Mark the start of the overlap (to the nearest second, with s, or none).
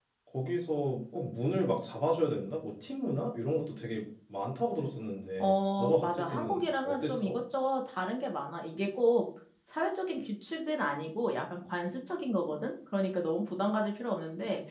5 s